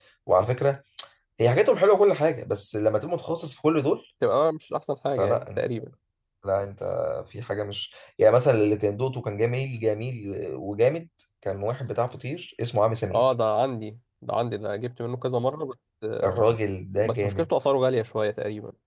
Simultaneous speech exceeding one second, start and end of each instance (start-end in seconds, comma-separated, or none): none